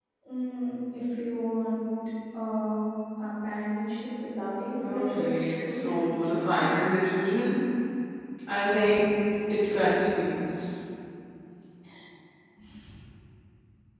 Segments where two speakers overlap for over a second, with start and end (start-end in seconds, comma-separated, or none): 4.8-7.0